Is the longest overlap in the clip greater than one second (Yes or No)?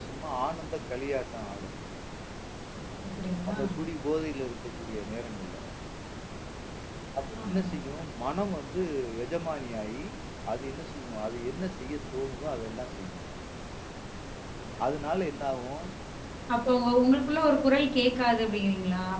No